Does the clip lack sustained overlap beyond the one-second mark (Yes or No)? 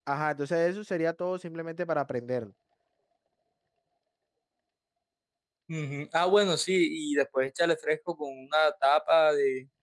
Yes